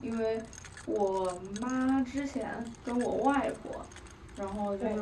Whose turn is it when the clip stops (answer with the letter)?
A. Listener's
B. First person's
B